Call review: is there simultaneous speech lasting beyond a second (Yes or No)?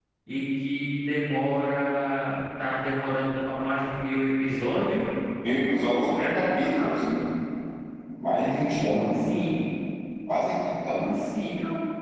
Yes